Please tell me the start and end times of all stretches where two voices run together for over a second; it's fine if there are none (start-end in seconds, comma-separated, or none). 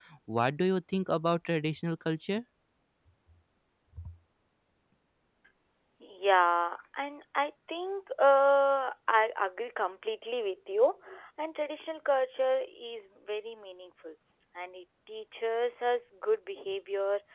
none